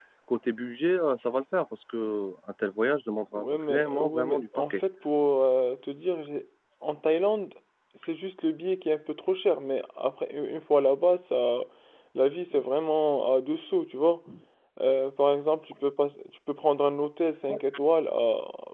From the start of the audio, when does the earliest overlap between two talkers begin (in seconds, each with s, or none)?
3.3 s